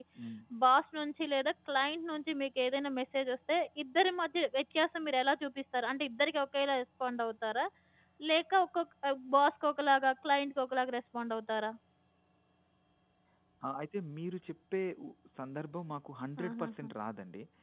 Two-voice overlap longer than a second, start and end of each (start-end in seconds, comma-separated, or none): none